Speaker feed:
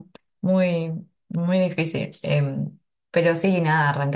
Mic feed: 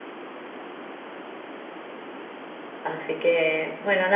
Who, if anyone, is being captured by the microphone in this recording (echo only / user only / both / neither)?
user only